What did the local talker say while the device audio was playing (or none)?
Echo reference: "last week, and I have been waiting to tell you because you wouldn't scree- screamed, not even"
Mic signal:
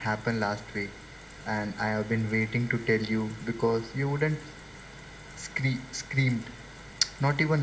none